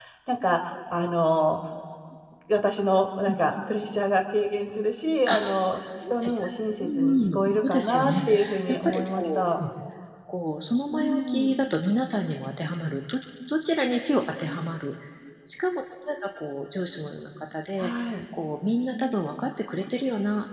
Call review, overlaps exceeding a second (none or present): present